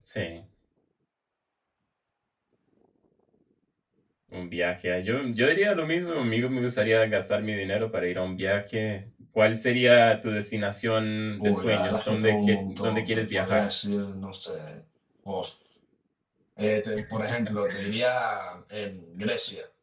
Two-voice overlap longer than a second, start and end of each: 11.4-13.6

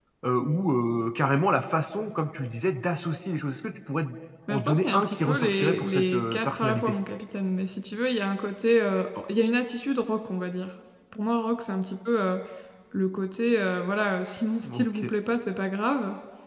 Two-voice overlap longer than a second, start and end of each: 4.5-6.9

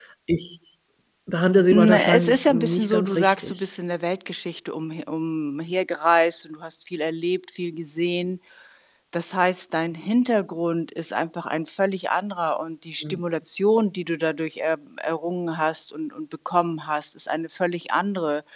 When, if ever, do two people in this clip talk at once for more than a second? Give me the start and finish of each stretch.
1.7-3.7

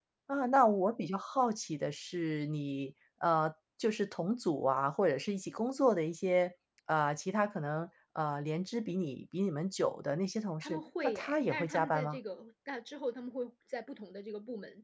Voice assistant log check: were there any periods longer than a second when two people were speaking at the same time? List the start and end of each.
10.6-12.2

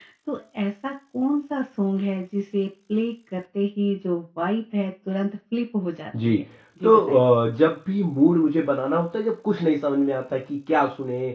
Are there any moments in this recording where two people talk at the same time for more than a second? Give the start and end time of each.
none

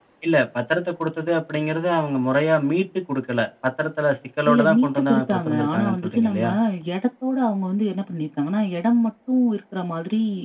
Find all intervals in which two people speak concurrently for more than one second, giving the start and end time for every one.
4.5-6.5

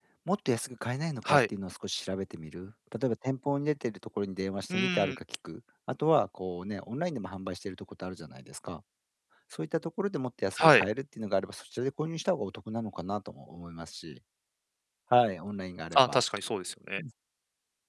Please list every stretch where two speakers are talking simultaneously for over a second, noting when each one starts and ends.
none

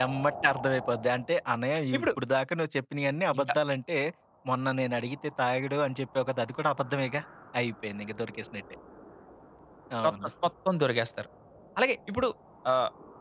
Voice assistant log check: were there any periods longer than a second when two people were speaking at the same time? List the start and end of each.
none

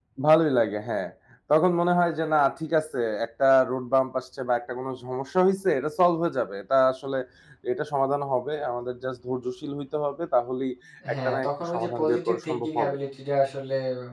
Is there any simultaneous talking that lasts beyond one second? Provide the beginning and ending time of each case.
11.1-13.0

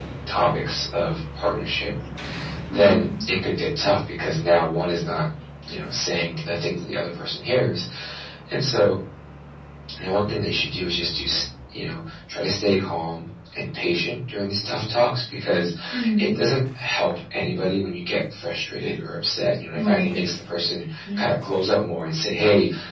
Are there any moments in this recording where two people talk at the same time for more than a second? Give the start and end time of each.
none

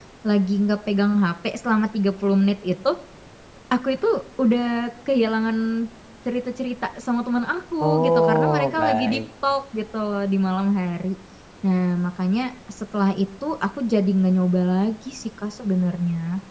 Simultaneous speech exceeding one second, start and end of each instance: 7.8-9.2

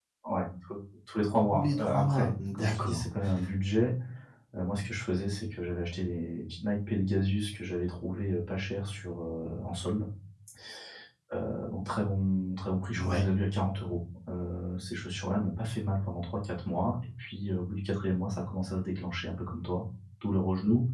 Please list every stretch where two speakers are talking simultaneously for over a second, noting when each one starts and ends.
1.5-3.0

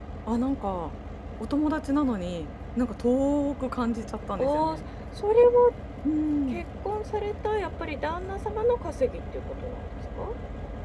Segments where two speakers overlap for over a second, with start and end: none

